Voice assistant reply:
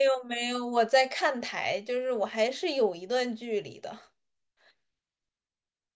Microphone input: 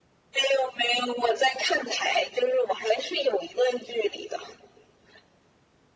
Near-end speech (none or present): none